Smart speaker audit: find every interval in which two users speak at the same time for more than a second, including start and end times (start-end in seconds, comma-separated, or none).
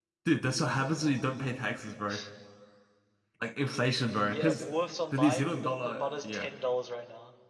5.1-6.5